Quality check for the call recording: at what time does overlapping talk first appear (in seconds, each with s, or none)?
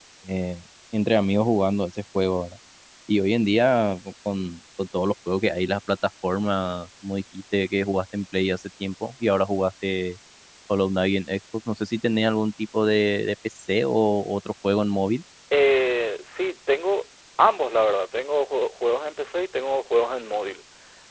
none